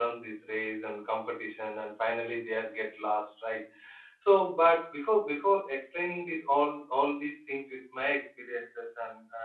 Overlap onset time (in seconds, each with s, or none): none